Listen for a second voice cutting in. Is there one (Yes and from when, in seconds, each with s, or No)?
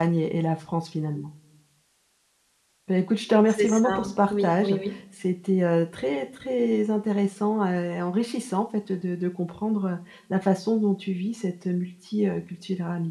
Yes, from 3.5 s